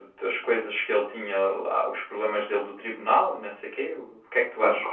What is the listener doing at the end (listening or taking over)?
taking over